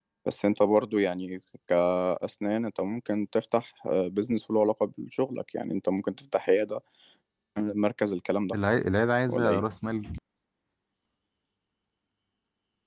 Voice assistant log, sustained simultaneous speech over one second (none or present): none